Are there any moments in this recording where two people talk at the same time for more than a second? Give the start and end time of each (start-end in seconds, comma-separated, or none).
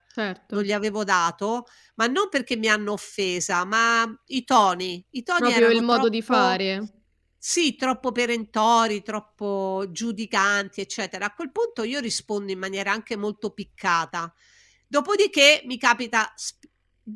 5.4-6.6